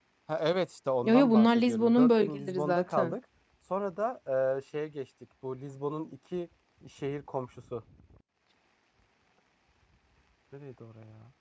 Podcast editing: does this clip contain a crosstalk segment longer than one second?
Yes, from 1.0 s

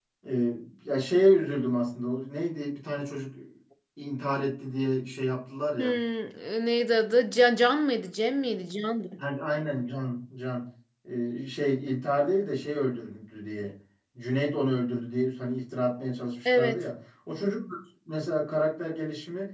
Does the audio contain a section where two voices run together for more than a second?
No

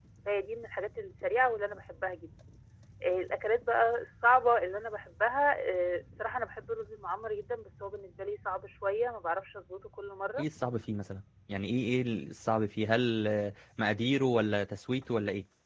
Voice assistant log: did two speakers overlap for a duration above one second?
No

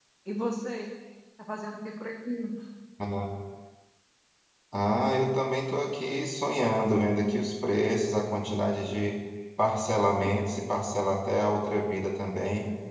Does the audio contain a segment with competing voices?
No

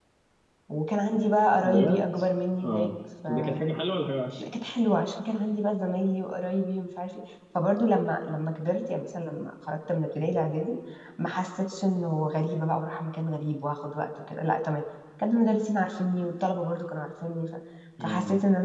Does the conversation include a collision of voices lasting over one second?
No

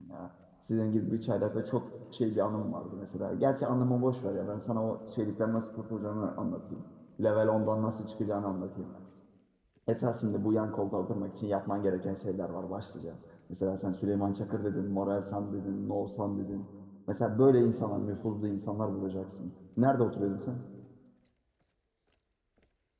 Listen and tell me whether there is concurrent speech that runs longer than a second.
No

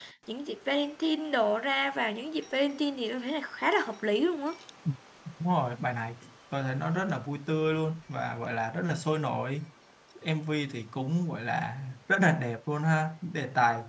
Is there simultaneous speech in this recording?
No

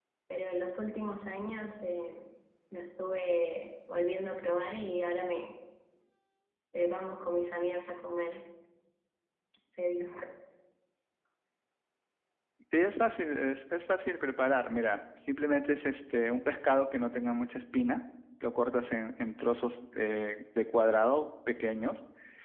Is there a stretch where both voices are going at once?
No

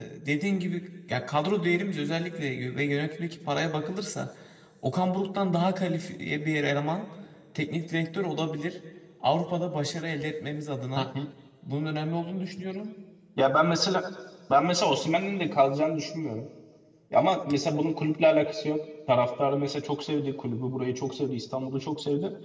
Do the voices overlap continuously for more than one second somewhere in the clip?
No

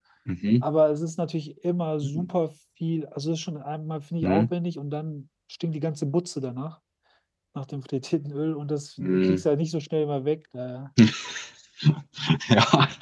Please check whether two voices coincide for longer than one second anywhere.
No

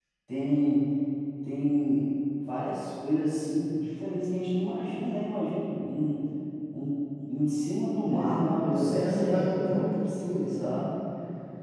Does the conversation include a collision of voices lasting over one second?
Yes, from 8.1 s

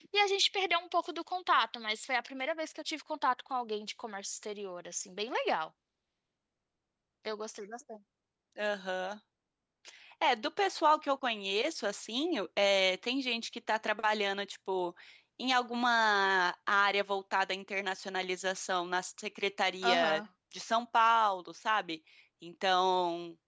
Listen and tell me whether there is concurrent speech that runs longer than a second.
No

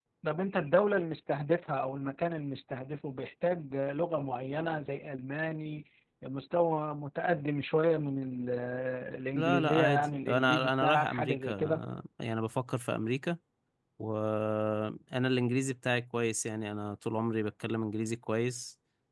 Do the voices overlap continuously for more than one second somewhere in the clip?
Yes, from 9.4 s

